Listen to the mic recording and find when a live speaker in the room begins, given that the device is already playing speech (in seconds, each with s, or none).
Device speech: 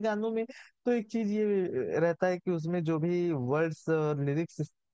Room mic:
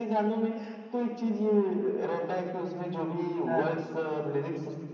3.5 s